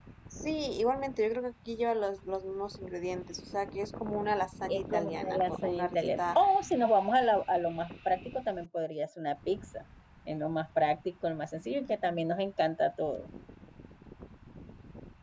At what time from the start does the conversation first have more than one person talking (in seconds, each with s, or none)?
4.7 s